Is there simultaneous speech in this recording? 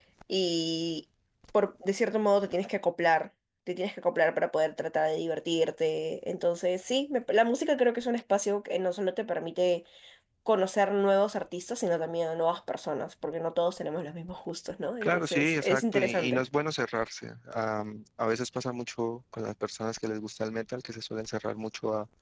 Yes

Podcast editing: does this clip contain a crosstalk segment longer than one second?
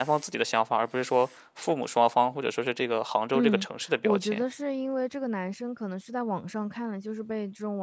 No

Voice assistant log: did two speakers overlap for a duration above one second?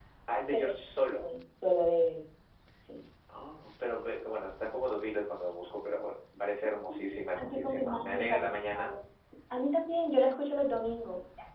Yes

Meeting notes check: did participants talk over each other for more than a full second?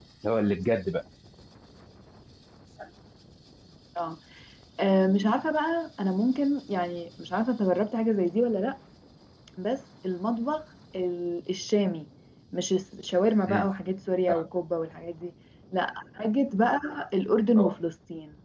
No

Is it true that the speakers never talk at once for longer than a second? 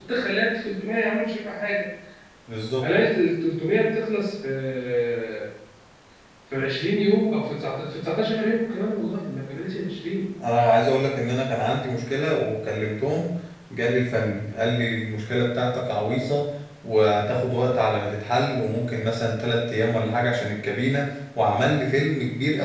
Yes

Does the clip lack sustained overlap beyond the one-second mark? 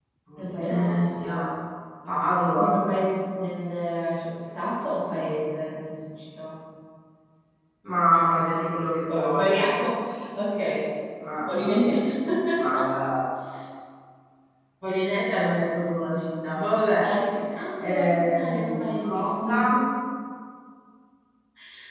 No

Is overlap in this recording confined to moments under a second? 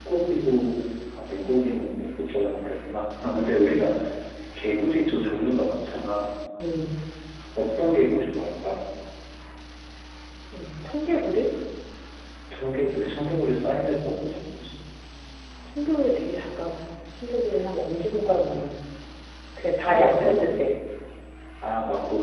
Yes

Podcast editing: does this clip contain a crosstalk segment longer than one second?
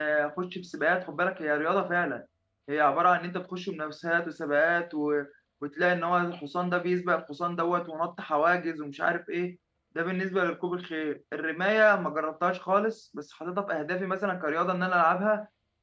No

